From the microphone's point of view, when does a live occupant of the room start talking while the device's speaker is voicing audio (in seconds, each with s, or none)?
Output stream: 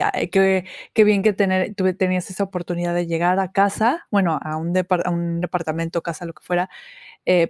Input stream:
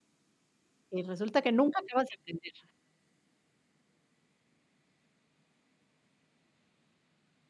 0.9 s